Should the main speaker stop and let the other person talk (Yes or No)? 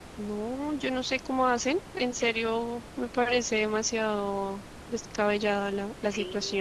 Yes